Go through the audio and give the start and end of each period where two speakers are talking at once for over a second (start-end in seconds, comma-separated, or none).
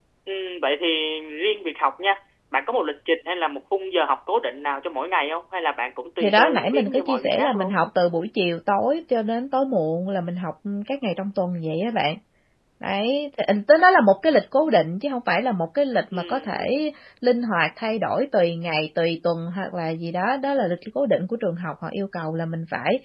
6.2-7.8